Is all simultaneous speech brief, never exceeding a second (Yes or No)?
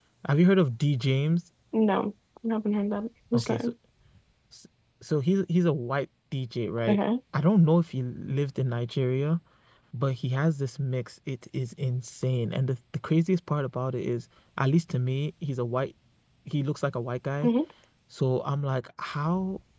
Yes